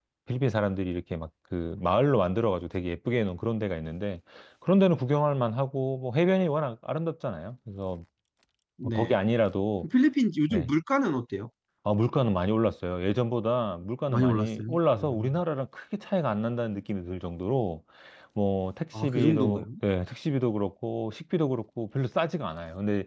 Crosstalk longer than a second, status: present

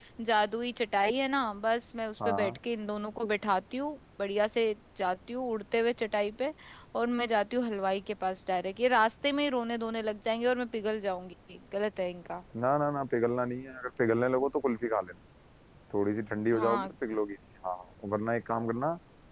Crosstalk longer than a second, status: none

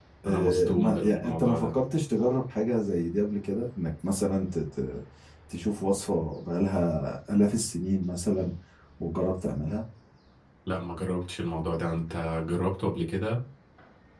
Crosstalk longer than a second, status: present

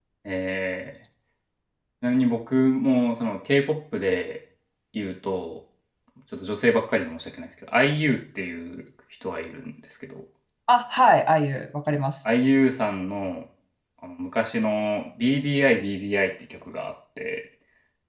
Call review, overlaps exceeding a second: none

